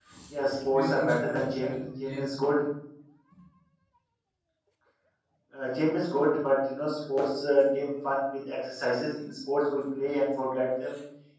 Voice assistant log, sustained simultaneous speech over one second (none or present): present